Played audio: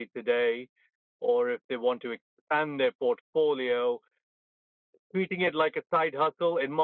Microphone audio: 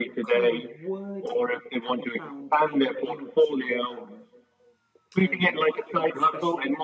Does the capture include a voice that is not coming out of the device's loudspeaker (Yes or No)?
Yes